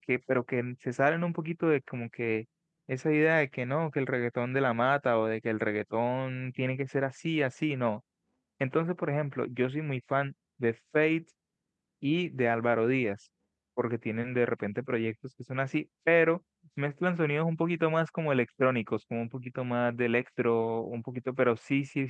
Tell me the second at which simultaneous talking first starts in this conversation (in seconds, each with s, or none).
none